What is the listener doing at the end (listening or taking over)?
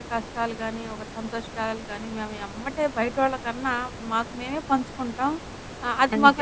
listening